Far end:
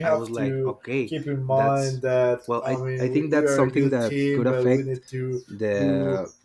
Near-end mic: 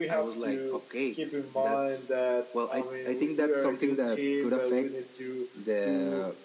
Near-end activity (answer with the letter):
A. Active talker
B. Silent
B